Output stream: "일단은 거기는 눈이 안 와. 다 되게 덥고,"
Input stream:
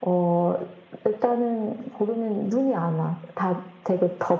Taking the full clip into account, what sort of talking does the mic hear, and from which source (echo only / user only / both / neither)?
echo only